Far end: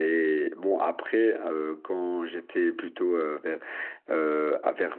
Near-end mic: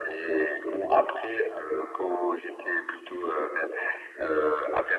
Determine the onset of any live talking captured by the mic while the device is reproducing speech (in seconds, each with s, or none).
none